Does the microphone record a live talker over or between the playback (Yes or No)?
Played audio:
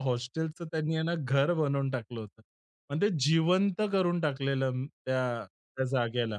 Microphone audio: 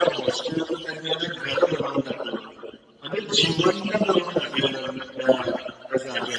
No